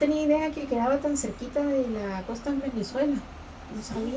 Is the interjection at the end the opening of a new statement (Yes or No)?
Yes